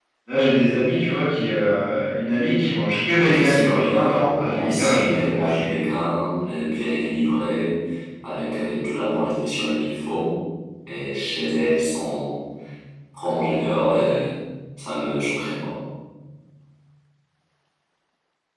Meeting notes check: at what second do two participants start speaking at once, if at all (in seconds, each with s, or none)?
3.2 s